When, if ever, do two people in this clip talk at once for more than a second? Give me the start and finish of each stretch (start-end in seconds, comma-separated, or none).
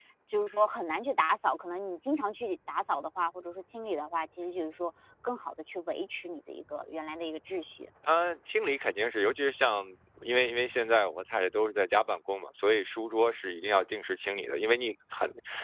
none